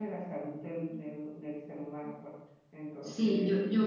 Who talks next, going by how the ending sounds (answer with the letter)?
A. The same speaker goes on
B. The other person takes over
B